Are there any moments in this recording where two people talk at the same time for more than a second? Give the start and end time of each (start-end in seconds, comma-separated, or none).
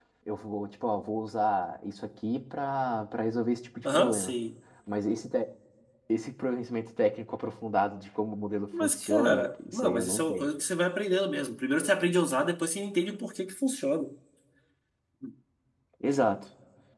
8.8-10.5